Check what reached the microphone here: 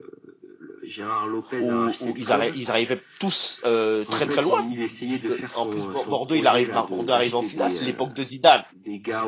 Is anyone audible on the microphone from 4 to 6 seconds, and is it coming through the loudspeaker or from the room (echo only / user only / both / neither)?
both